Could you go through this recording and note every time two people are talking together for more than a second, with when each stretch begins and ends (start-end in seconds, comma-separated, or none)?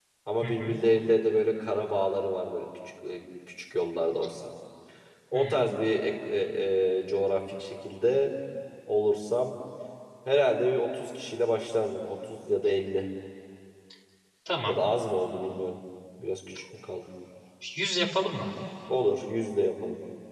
none